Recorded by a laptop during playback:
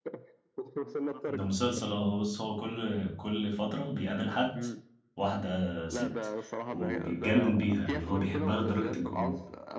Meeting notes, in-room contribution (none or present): present